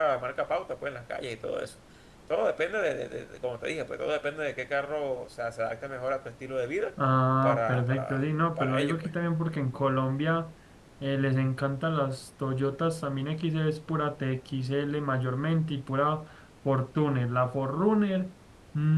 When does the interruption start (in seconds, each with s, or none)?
7.4 s